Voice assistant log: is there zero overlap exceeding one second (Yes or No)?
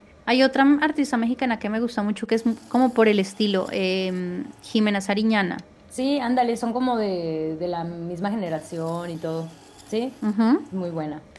Yes